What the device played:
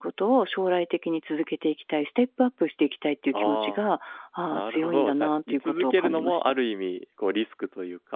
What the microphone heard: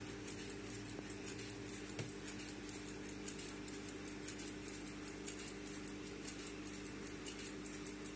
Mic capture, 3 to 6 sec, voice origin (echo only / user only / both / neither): neither